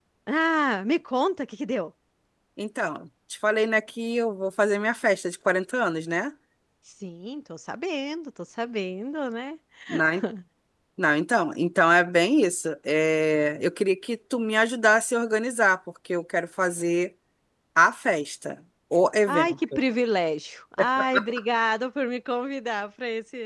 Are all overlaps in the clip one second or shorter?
Yes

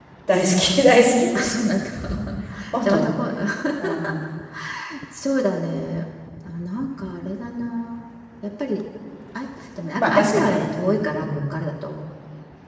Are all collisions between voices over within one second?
No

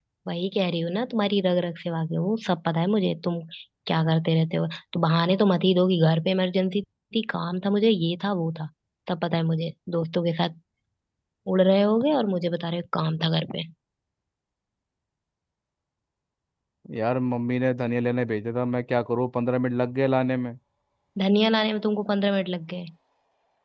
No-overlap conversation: Yes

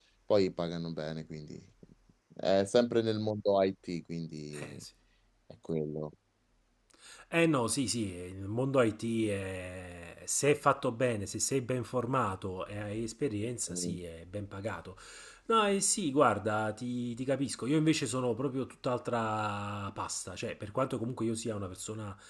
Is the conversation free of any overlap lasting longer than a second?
Yes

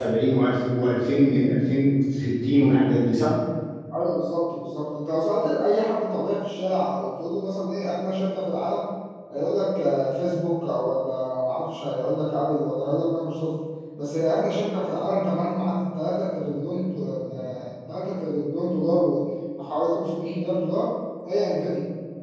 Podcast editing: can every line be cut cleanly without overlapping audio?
Yes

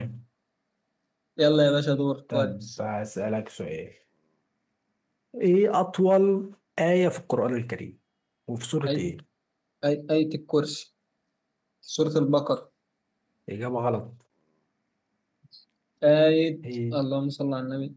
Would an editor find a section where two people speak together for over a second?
No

